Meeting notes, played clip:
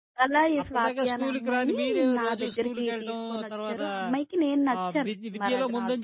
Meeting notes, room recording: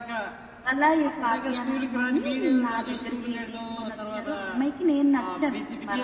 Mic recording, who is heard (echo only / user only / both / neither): echo only